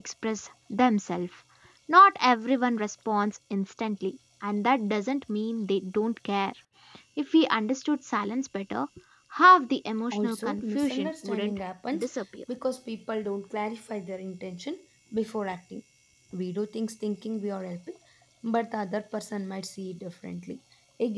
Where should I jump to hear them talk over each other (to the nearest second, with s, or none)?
10 s